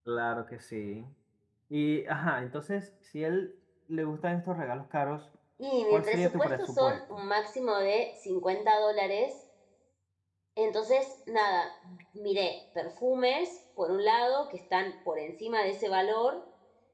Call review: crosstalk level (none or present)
present